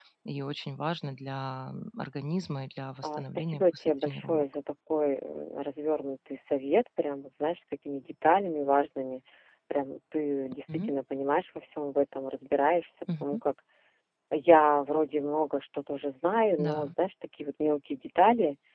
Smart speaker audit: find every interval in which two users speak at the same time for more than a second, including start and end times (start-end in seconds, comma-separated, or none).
3.0-4.4